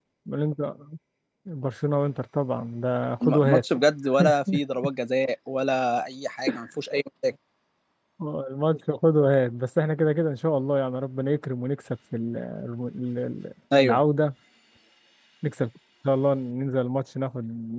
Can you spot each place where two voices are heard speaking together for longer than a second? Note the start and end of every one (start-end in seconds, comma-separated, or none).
none